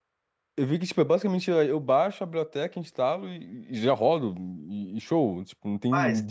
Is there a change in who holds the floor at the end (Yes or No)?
Yes